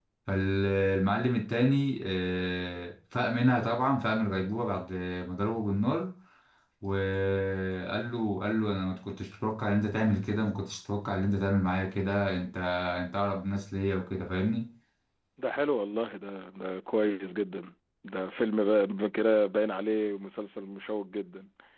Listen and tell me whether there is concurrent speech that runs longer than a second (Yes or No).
No